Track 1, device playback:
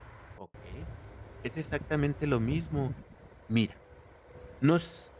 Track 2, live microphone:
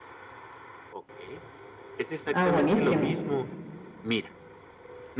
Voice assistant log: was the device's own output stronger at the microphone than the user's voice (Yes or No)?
No